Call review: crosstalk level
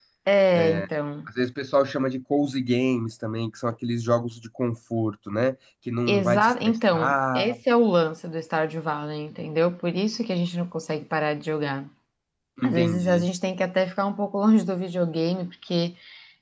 present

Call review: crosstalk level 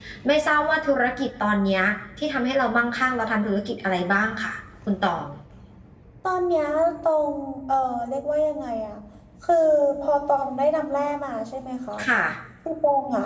none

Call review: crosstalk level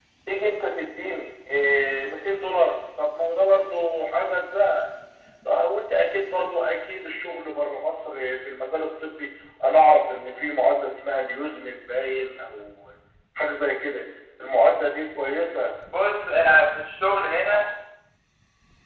none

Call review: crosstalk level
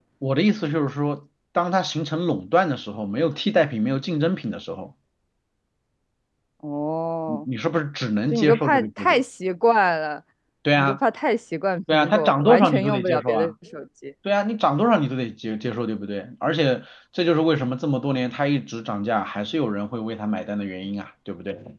present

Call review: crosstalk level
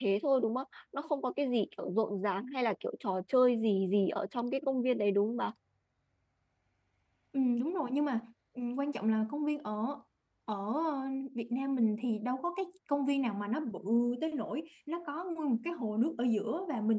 none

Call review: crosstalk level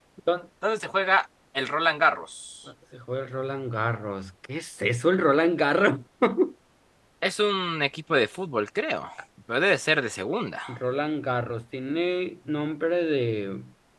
none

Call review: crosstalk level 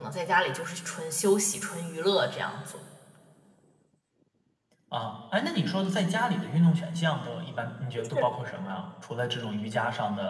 none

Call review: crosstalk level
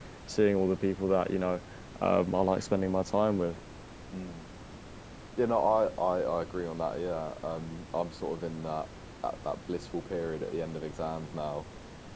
none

